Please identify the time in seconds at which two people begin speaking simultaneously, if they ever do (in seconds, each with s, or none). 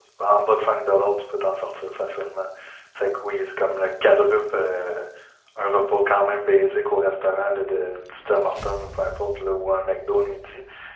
none